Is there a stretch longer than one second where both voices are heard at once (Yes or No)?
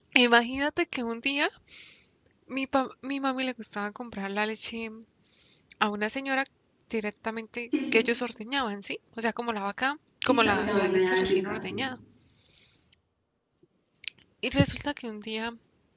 Yes